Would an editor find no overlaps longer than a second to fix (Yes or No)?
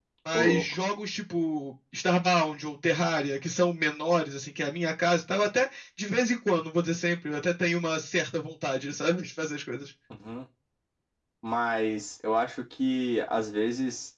Yes